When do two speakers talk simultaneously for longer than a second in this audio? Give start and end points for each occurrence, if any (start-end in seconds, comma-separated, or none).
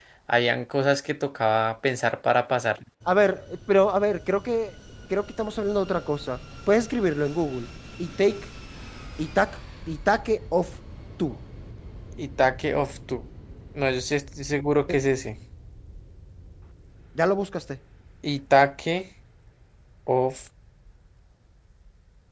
none